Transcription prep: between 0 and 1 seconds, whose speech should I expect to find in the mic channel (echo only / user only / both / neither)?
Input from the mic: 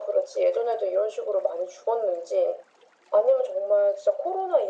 echo only